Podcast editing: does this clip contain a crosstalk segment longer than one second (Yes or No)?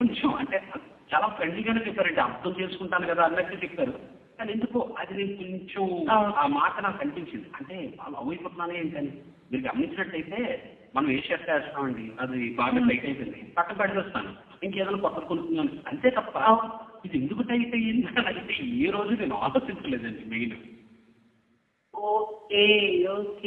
No